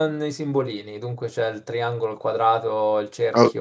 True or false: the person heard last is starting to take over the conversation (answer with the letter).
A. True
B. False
A